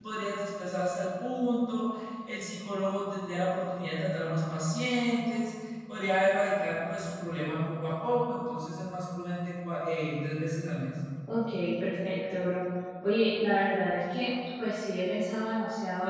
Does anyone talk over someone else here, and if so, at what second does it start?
none

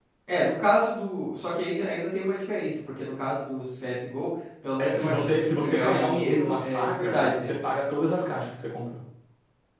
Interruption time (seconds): 4.8 s

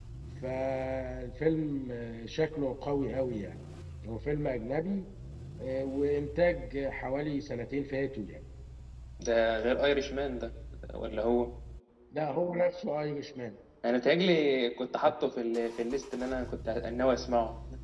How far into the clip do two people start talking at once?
none

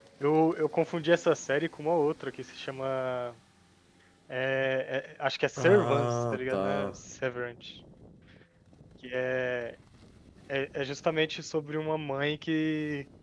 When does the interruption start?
5.6 s

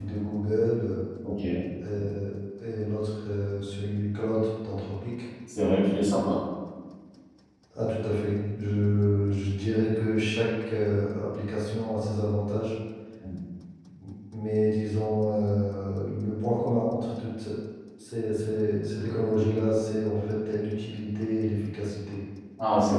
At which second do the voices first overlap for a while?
none

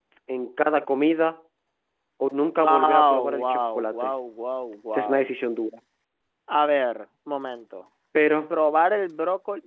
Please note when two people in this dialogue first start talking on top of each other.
2.6 s

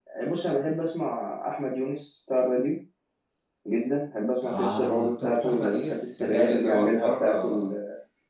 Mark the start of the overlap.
4.4 s

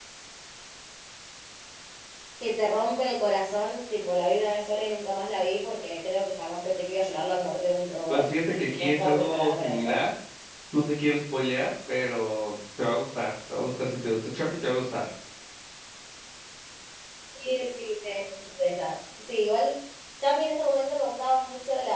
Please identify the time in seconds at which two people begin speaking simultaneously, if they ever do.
8.1 s

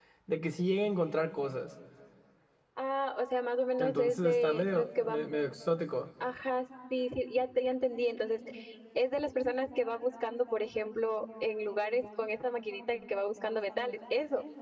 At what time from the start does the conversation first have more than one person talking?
3.8 s

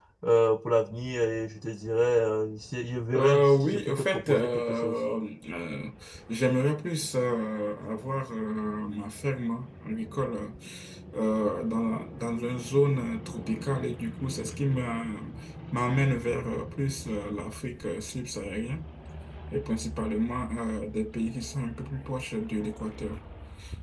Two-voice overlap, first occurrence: 3.1 s

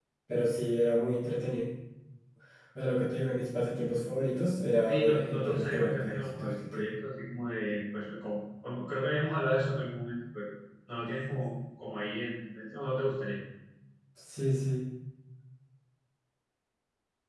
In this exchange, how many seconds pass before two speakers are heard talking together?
4.8 s

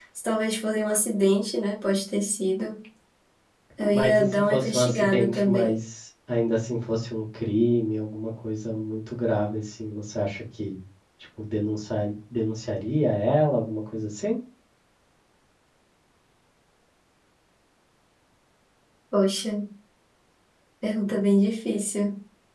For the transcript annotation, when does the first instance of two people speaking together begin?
3.9 s

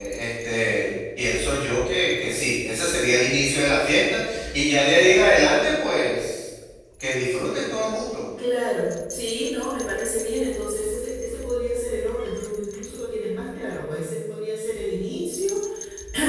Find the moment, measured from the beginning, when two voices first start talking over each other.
none

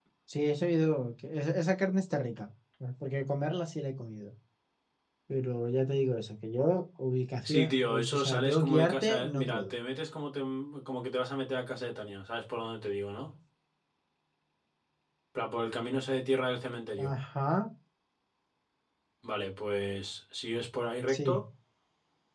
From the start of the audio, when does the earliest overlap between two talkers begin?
7.5 s

